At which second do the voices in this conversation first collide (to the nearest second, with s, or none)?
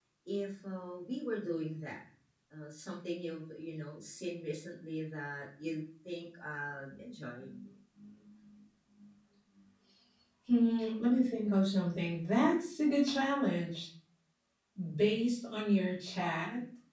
none